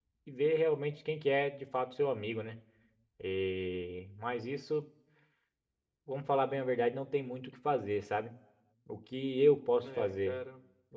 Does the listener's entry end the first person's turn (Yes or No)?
No